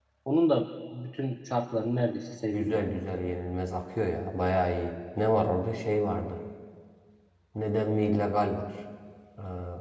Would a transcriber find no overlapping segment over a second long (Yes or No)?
Yes